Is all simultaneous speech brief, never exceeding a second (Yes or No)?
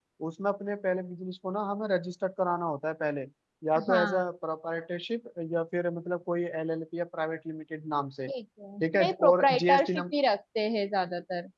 No